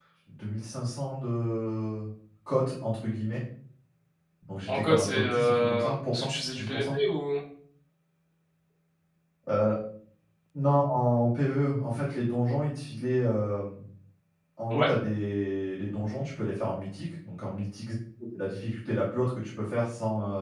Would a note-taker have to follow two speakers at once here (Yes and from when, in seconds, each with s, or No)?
Yes, from 4.7 s